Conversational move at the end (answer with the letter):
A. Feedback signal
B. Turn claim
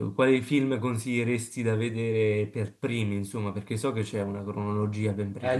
B